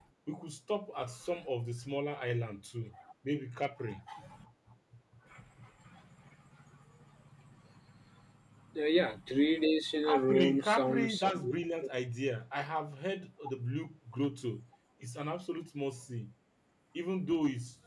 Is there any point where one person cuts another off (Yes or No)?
Yes